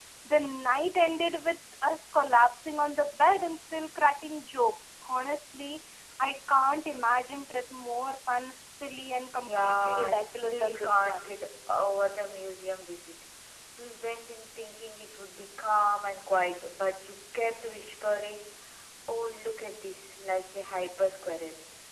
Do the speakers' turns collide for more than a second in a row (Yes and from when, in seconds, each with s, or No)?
Yes, from 9.4 s